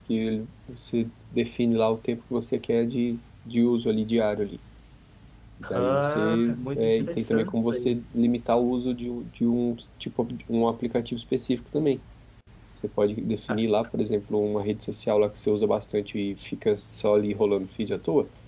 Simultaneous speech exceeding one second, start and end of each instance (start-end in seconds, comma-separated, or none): 5.7-8.0